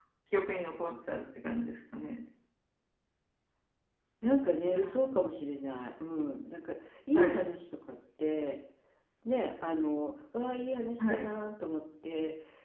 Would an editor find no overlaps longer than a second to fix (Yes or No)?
Yes